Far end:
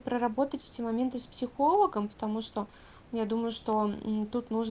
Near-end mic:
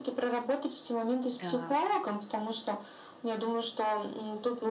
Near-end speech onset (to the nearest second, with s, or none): 1 s